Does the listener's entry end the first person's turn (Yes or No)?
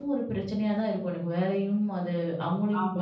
Yes